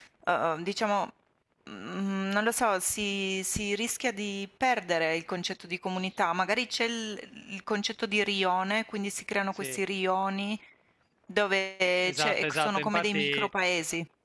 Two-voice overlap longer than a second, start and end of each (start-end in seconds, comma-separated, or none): 12.0-13.5